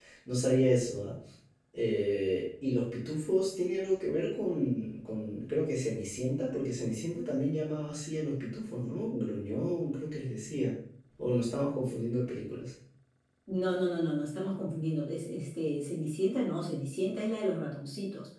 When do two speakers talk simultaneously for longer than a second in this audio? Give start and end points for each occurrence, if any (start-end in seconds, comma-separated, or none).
none